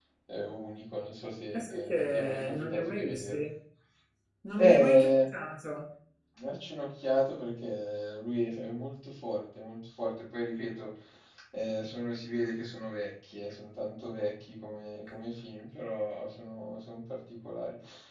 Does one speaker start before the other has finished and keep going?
Yes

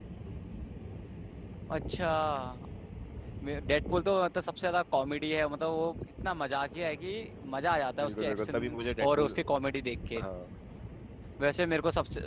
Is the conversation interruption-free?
No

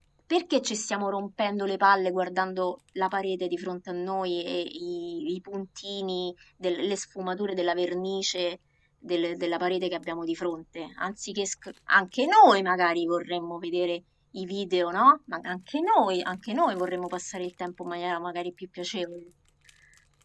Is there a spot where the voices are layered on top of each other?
No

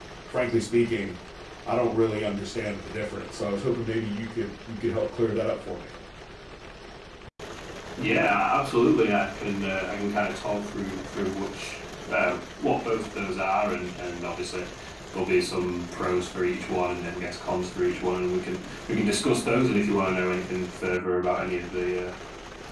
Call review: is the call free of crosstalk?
Yes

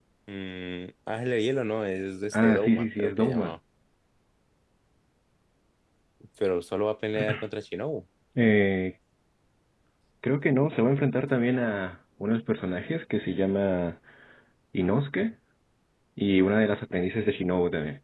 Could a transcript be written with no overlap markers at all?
No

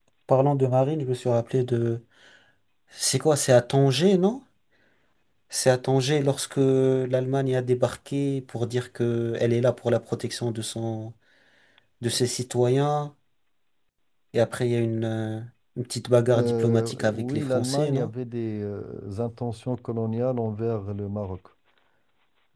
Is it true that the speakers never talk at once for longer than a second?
No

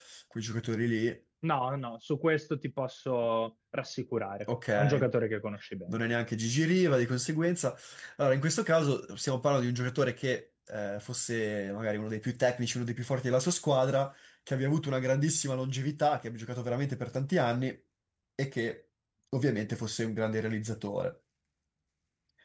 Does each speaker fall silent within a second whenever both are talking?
Yes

